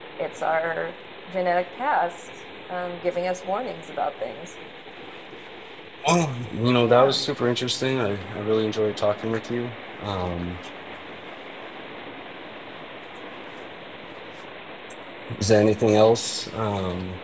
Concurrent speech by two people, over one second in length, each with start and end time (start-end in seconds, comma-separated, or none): none